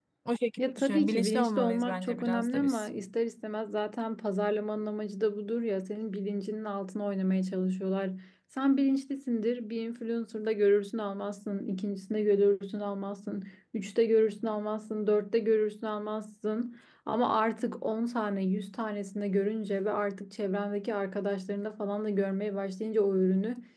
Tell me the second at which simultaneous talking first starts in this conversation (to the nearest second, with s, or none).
1 s